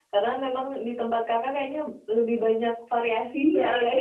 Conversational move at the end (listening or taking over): taking over